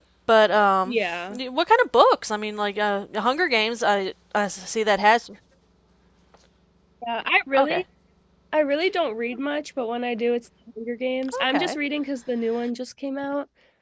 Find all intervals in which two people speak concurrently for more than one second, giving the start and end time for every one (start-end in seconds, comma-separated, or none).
none